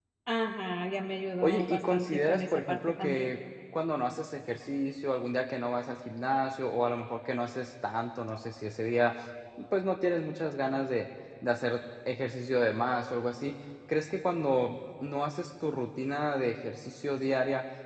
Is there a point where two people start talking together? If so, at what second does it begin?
1.4 s

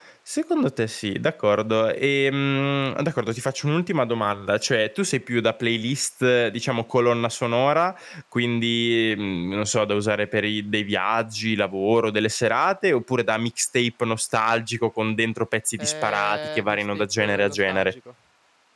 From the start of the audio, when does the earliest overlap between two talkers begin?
15.8 s

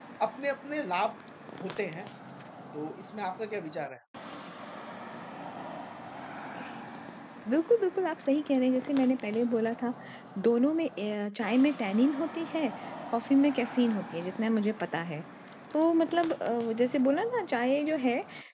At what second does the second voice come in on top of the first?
none

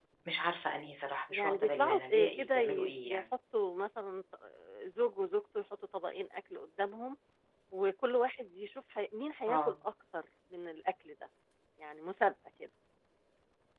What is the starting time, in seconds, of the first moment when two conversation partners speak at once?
1.3 s

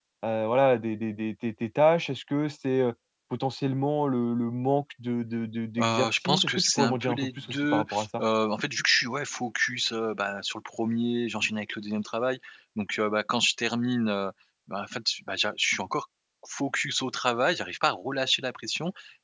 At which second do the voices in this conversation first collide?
5.8 s

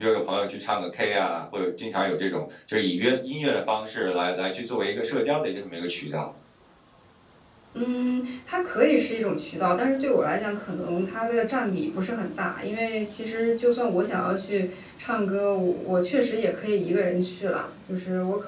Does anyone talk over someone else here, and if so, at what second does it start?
none

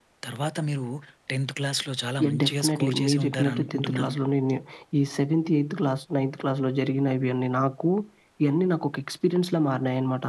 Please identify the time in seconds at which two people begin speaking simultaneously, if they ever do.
2.2 s

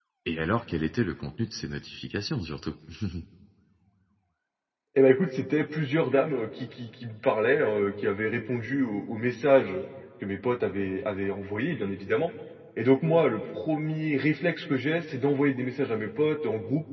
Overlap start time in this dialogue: none

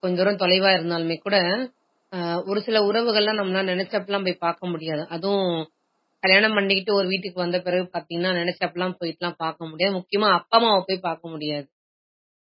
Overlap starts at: none

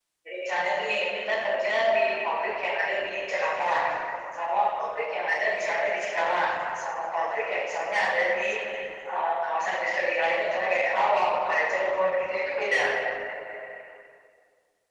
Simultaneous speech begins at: 0.7 s

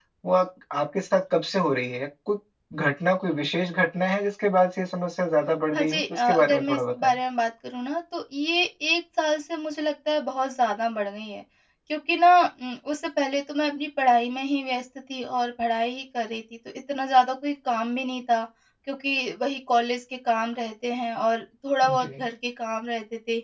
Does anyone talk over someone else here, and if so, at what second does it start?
5.7 s

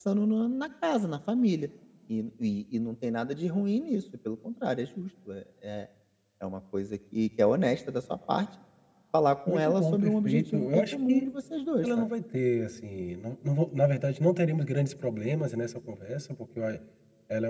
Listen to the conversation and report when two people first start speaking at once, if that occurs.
9.5 s

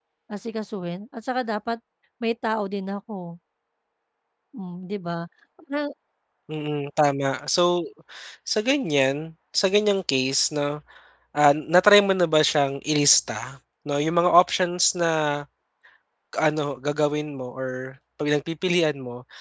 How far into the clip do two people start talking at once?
none

